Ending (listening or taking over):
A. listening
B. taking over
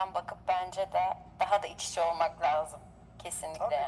B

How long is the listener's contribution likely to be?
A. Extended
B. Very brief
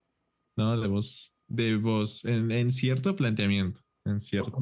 A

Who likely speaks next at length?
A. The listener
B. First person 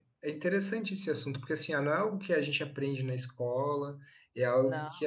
B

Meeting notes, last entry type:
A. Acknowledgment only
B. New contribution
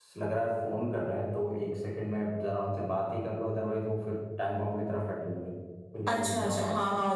B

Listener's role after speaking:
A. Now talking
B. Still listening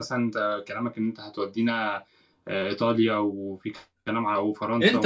A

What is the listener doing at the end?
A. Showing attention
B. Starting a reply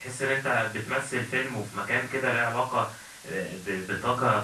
A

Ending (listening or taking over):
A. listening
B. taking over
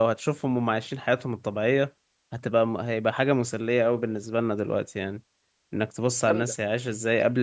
A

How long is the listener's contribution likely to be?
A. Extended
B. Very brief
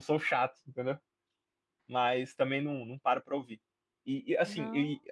B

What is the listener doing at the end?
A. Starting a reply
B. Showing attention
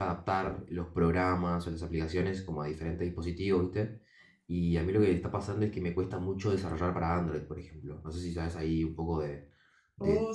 A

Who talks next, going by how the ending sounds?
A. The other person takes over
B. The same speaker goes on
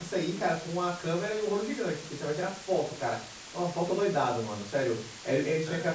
B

